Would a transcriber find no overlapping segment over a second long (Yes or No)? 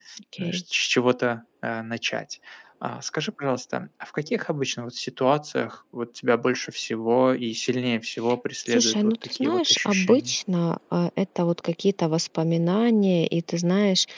No